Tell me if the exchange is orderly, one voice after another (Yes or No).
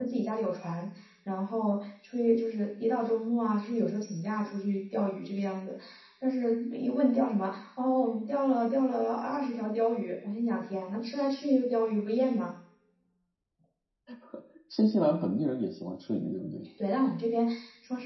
Yes